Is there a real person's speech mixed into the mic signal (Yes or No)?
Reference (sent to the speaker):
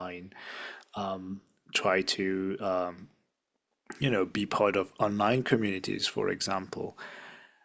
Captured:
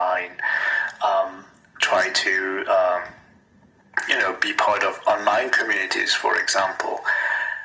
No